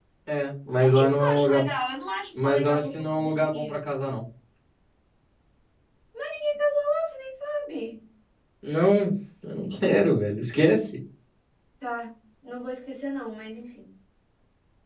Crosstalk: present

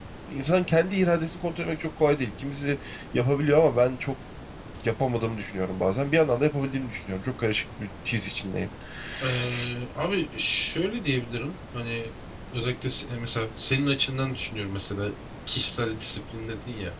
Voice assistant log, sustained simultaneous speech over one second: none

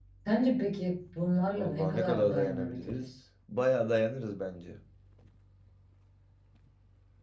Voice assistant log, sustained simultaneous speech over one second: present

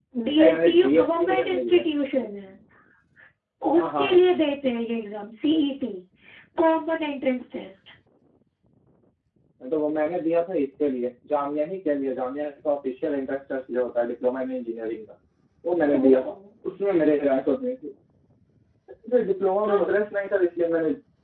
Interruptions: present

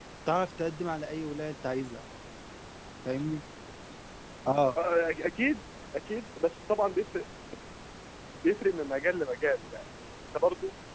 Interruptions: none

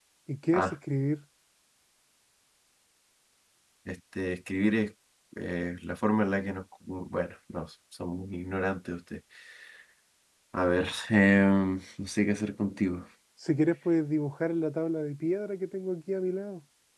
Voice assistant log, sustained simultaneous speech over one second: none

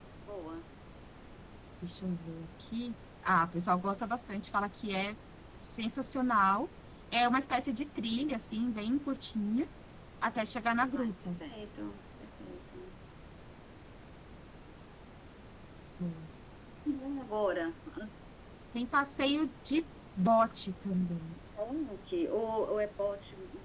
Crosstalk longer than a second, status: none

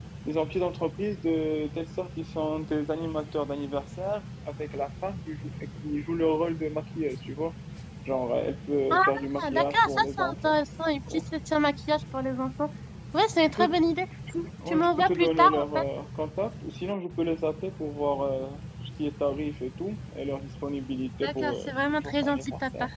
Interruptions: present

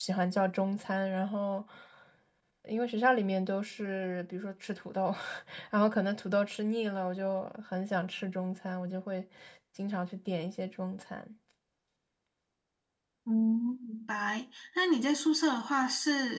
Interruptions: none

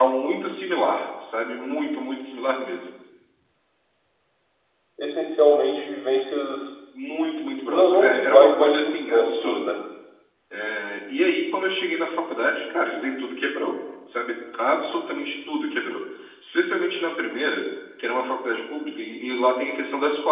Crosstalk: present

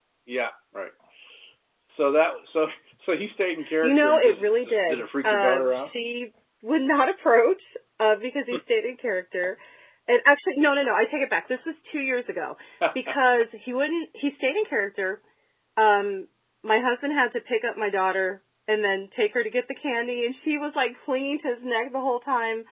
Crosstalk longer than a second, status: present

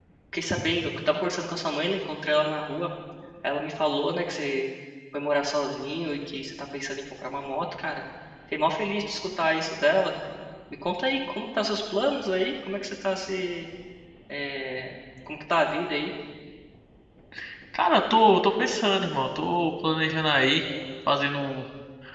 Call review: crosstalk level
none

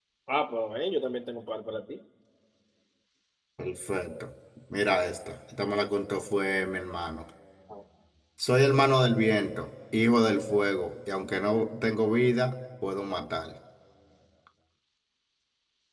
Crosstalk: none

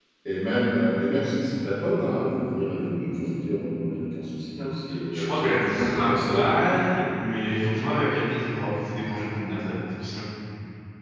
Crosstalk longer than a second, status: present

